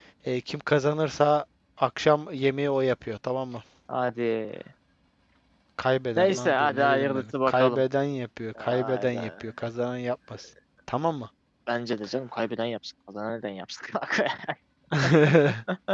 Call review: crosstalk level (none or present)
present